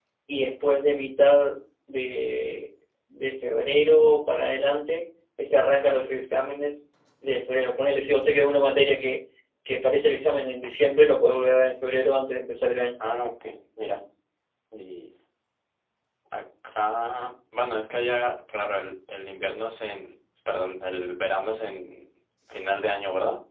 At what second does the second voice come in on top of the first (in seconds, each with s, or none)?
none